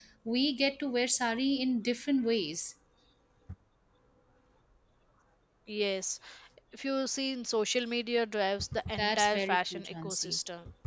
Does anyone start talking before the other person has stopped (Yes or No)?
Yes